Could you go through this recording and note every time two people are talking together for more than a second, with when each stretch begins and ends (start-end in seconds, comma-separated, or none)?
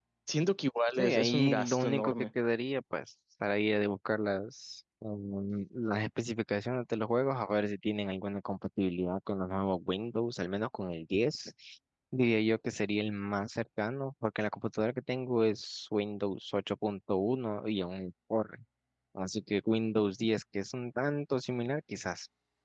1.0-2.2